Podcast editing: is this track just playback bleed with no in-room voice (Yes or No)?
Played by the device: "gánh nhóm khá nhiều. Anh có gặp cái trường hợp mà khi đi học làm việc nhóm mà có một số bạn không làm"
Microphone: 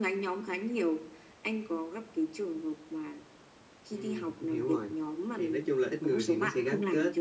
No